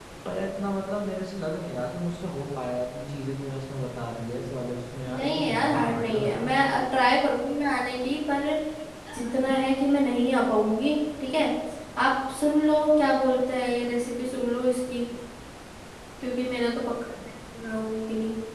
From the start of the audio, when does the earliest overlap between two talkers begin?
5 s

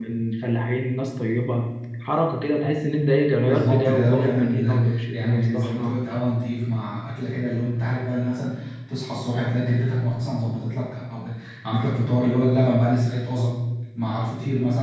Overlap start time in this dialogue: 3 s

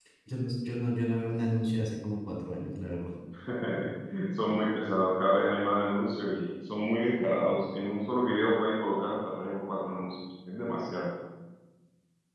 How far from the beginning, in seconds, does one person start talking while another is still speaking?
none

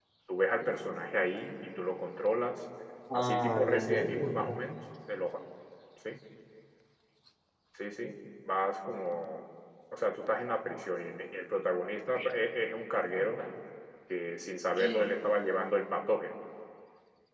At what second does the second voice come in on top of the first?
3 s

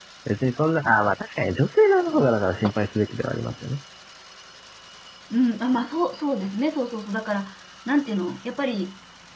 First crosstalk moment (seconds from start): none

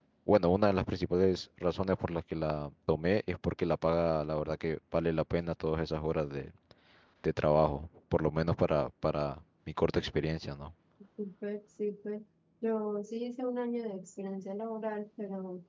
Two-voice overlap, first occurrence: none

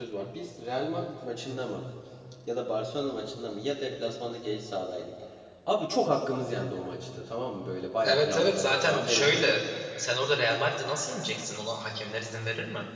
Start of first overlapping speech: 8 s

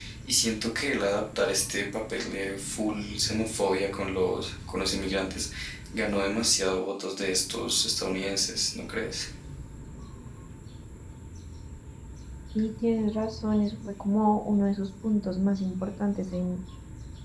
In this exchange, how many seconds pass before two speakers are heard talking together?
none

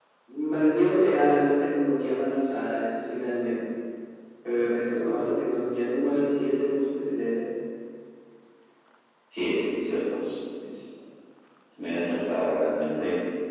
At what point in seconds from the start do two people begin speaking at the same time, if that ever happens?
none

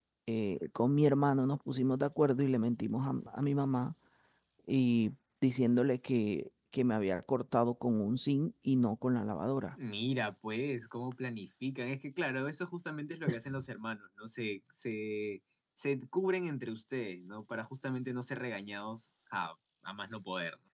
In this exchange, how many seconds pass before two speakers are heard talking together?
none

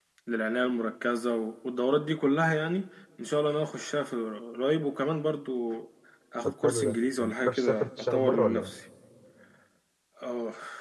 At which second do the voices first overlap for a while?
6 s

